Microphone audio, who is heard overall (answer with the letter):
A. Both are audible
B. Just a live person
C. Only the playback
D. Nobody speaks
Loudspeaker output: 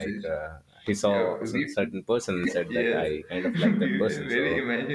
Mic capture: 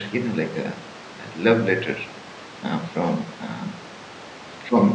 B